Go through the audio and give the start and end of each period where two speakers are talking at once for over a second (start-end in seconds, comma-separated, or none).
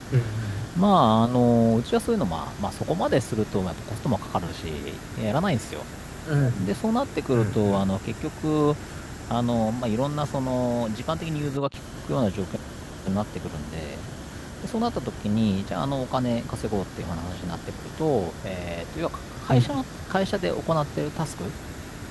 none